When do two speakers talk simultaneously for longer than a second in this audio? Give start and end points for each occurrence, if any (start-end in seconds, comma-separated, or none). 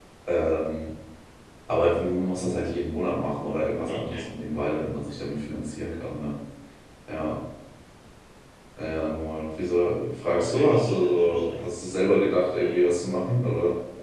10.3-11.5